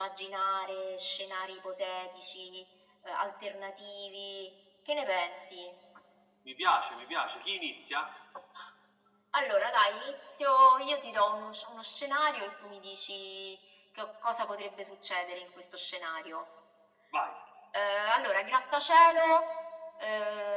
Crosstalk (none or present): none